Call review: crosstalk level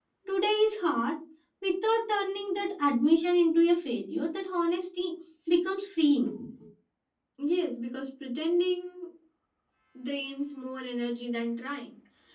none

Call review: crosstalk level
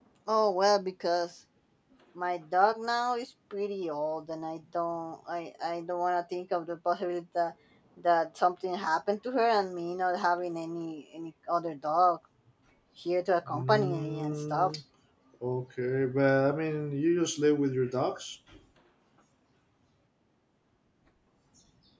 present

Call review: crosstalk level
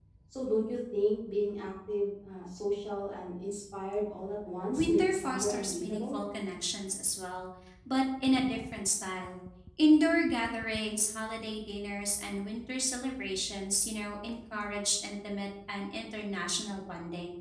present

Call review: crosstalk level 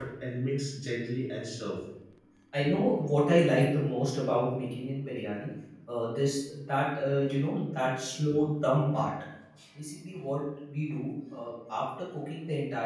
none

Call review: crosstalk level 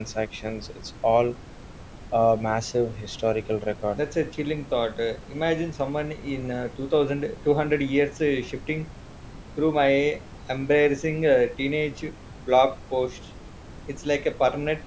none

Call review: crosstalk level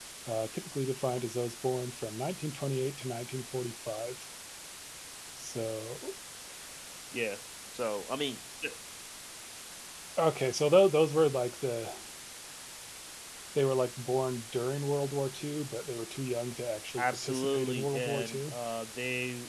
present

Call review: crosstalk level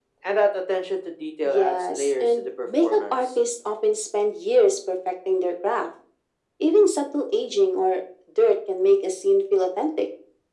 present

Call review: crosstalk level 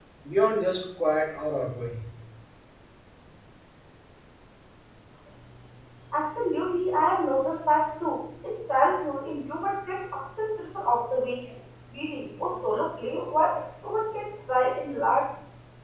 none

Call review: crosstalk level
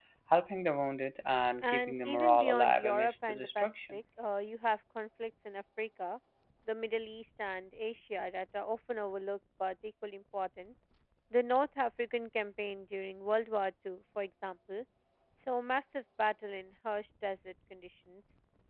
present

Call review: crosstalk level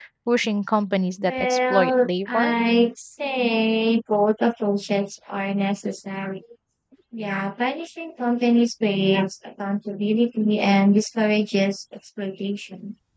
present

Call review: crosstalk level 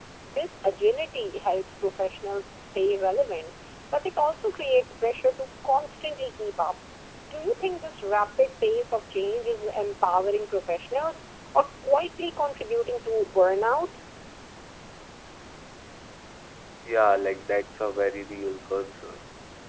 none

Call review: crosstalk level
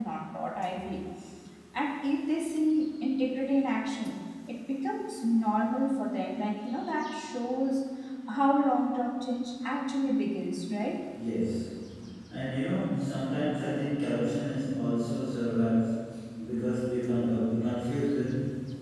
none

